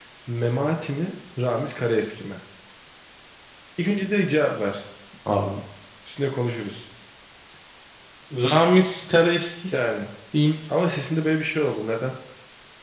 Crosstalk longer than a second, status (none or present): none